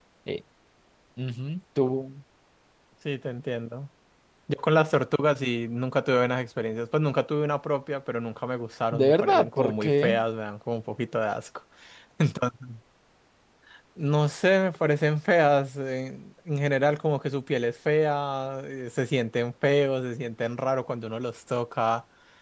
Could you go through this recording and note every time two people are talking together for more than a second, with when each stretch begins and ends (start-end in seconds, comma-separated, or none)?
8.9-10.2